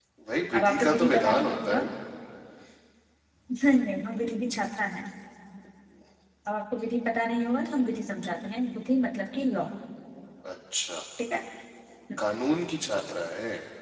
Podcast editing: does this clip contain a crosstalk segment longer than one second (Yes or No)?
Yes